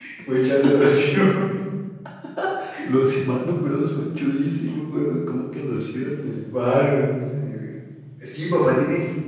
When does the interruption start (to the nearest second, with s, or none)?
none